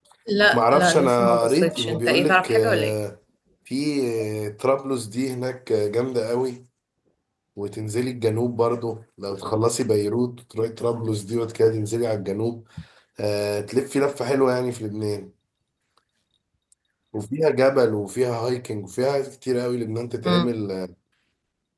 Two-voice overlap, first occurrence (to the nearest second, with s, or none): 1 s